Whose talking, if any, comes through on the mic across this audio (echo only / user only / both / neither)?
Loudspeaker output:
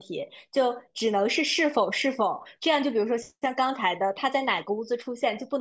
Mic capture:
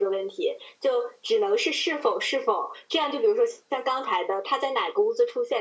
echo only